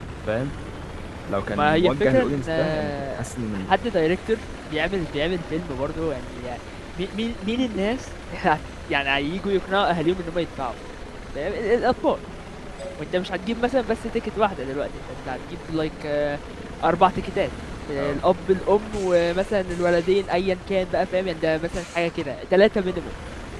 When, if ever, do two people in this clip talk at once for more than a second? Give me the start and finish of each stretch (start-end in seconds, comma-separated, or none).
1.5-3.7